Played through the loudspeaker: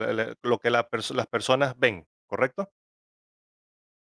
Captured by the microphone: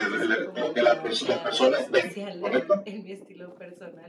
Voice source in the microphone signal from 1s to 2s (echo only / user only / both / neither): both